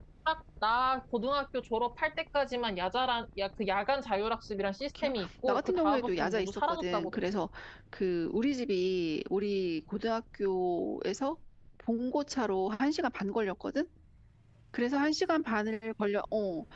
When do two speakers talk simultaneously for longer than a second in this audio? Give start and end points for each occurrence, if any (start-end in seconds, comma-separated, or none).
5.0-7.2